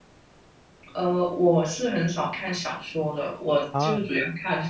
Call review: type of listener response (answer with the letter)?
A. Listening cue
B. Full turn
A